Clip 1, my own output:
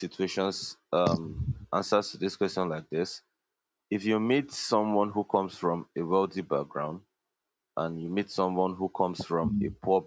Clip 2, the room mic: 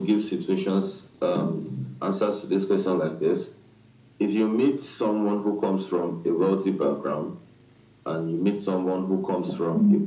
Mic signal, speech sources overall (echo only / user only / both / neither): echo only